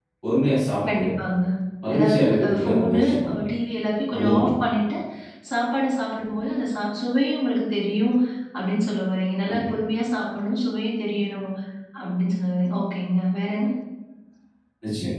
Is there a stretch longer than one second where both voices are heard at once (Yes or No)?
Yes